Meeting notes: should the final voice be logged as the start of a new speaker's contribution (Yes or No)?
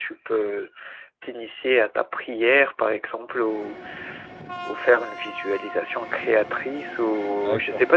No